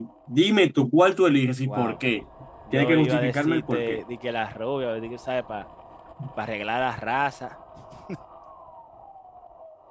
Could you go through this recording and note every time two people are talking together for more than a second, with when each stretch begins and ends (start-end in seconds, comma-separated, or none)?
2.7-4.0